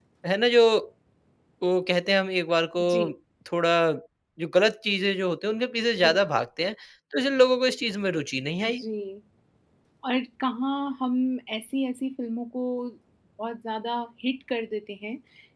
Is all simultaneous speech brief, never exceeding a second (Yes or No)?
Yes